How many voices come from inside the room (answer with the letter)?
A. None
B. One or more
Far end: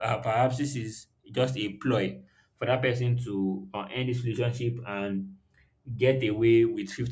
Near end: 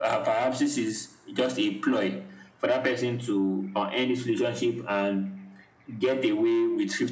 A